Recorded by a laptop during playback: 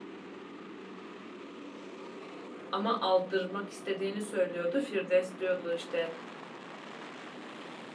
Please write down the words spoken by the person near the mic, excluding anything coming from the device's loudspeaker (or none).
Ama aldırmak istediğini söylüyordu. Firdevs diyordu işte